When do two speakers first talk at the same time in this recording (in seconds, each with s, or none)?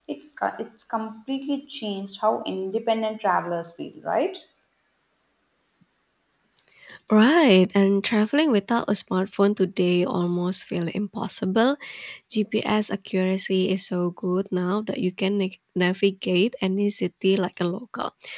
none